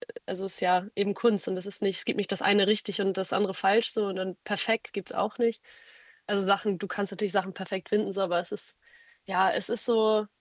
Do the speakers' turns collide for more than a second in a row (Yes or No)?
No